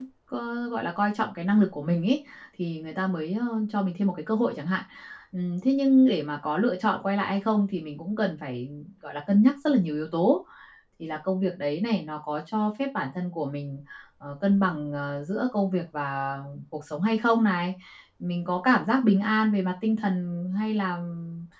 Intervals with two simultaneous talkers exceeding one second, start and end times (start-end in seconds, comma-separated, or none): none